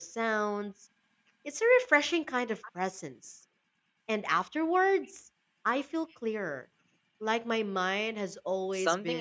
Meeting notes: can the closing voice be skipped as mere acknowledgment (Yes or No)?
No